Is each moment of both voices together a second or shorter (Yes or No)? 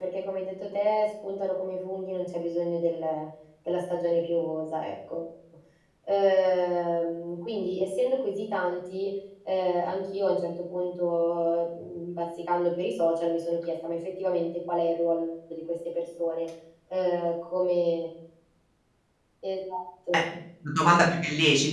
Yes